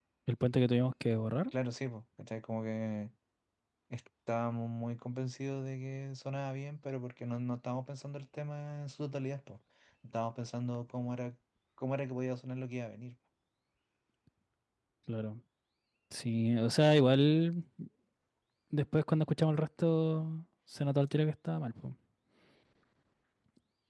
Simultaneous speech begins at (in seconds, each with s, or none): none